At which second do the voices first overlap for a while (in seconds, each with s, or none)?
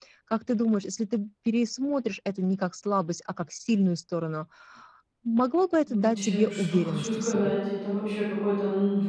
5.9 s